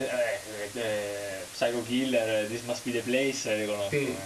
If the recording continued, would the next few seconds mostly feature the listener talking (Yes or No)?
Yes